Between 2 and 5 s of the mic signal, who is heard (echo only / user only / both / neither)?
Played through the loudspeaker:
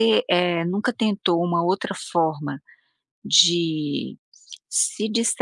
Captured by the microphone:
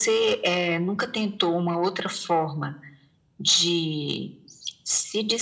echo only